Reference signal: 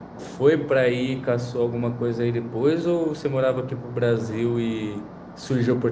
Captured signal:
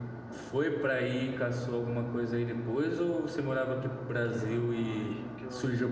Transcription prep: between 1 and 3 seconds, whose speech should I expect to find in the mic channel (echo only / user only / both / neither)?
echo only